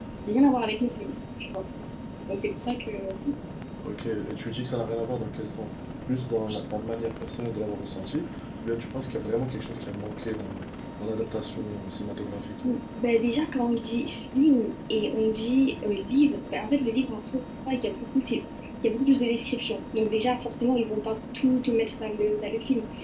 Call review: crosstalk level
none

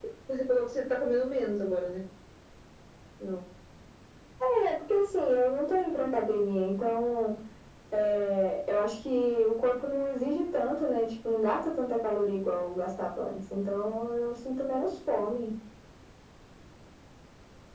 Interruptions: none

